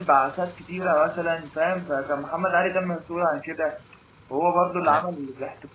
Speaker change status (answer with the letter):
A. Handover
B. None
B